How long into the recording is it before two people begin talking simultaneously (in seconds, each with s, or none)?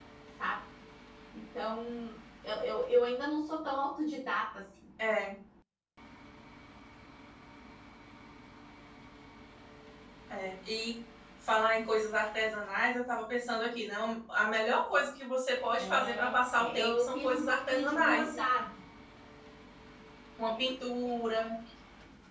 15.8 s